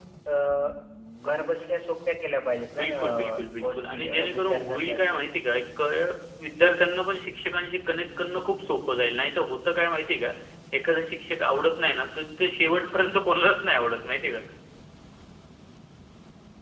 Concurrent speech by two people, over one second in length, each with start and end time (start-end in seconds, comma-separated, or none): 2.7-5.0